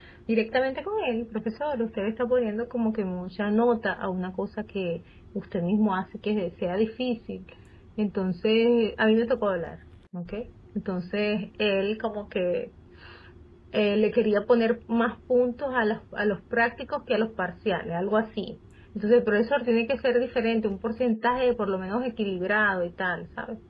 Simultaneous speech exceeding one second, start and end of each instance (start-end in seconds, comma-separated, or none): none